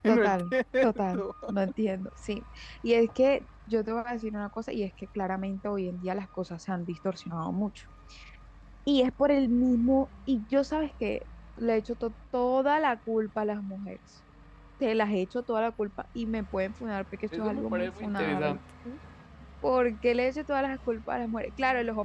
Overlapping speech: Yes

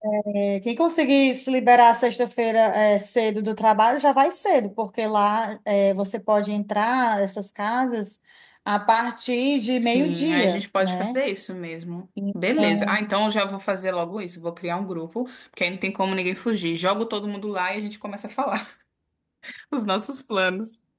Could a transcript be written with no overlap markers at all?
No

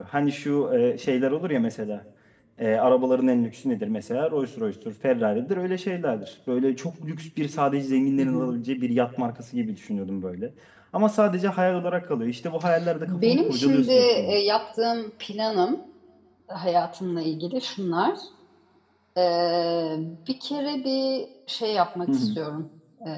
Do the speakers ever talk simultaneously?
Yes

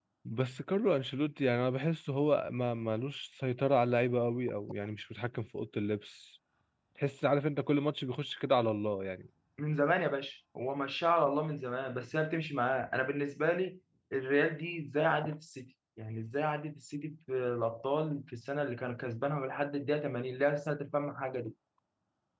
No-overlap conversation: Yes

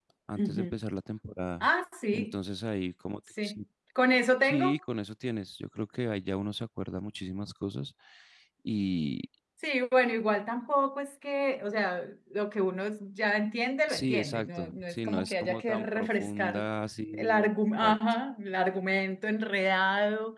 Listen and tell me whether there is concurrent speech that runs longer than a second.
Yes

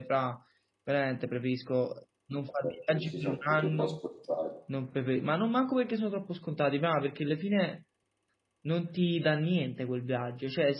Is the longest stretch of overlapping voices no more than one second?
No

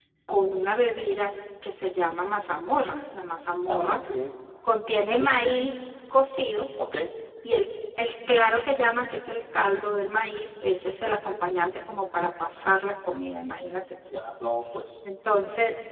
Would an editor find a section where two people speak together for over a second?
No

